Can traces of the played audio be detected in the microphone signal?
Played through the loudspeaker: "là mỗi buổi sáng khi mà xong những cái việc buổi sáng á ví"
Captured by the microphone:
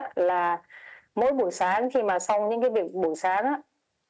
Yes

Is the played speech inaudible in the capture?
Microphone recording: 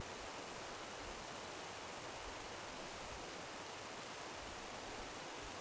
Yes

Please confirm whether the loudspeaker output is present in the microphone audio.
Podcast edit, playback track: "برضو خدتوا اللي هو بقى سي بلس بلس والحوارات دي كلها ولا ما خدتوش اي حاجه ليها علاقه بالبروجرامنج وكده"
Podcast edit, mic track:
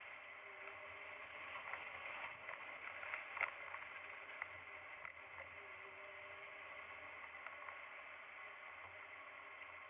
No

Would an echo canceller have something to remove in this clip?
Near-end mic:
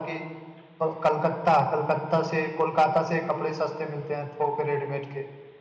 Yes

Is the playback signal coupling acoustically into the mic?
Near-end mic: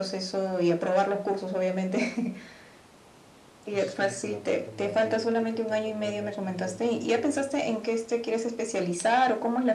Yes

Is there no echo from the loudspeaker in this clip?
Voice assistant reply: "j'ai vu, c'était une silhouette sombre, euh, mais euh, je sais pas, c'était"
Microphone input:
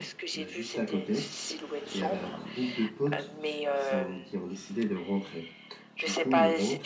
No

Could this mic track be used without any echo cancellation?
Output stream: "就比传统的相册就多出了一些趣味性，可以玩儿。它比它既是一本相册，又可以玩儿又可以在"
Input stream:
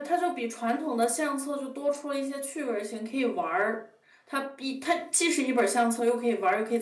No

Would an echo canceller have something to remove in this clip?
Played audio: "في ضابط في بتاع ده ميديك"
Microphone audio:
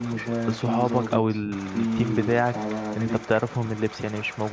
Yes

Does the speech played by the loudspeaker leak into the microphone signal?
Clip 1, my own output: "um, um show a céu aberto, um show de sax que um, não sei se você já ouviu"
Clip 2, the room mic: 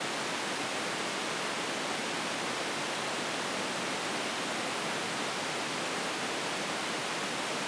No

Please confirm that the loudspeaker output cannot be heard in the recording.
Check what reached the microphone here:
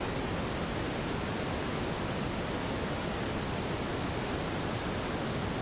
Yes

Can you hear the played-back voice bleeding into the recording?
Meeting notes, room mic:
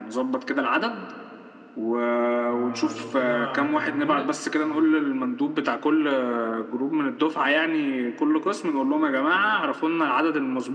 Yes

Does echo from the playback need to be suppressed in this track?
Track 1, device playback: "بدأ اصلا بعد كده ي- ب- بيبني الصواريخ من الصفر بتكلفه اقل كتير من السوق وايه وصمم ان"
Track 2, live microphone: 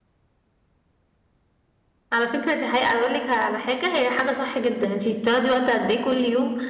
No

